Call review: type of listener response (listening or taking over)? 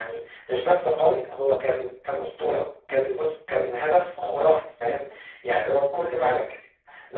listening